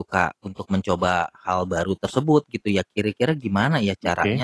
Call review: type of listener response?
listening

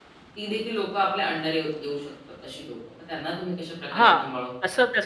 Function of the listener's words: taking over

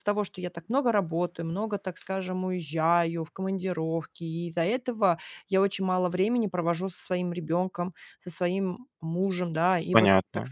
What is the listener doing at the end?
listening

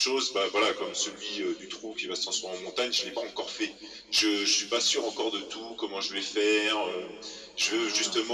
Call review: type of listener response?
listening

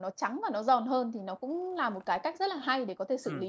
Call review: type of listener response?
taking over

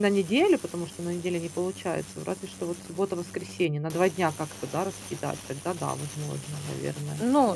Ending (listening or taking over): taking over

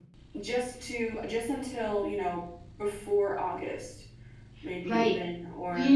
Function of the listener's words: taking over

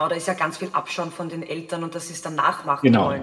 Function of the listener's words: taking over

